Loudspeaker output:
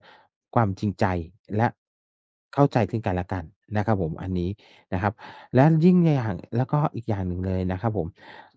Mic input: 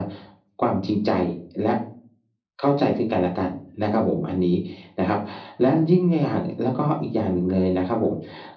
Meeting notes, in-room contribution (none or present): none